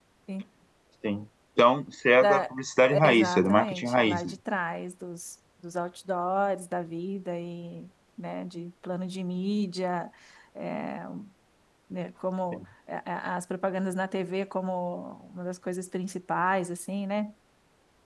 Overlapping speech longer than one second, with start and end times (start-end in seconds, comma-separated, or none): 2.9-4.3